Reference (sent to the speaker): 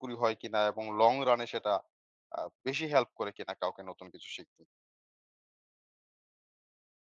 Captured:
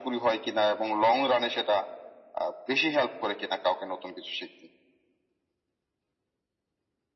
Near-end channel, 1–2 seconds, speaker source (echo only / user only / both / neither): echo only